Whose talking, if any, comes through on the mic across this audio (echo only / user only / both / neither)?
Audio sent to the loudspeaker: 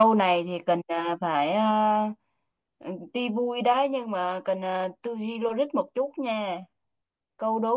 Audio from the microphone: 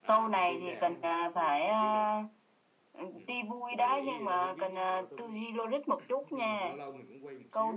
both